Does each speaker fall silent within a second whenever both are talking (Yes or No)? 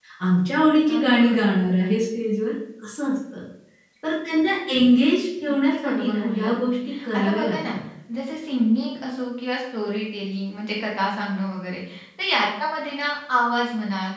No